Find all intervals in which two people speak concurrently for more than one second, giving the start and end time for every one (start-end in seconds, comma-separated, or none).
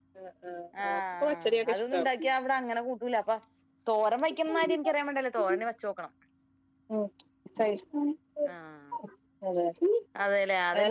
0.8-2.0